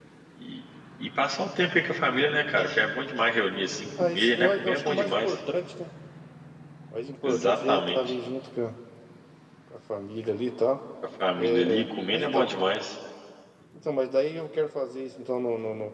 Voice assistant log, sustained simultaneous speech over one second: present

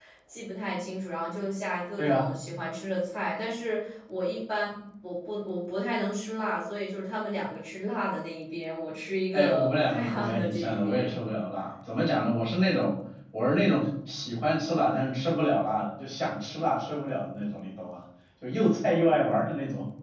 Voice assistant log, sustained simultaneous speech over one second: present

